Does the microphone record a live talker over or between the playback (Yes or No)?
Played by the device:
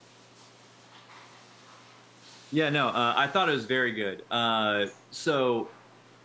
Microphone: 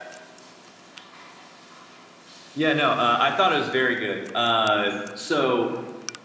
No